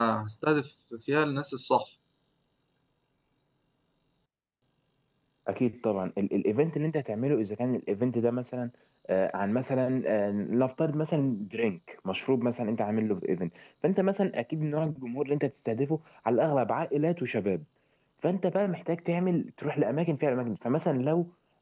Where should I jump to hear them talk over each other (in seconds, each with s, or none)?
none